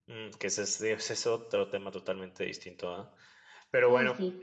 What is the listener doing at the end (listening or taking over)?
listening